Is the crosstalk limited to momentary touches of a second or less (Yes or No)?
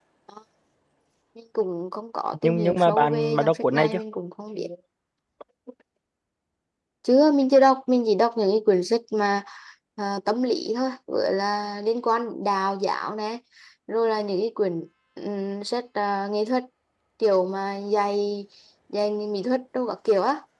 No